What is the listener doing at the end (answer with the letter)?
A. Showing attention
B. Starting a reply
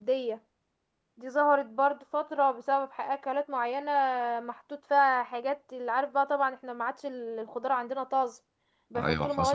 A